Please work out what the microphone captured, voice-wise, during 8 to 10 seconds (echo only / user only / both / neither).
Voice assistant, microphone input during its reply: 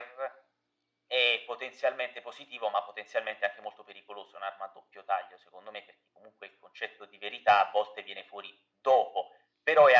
echo only